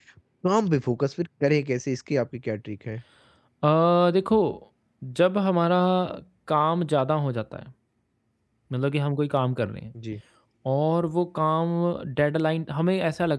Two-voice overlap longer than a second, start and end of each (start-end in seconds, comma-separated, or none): none